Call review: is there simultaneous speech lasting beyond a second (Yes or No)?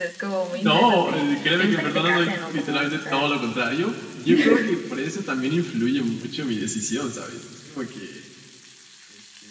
Yes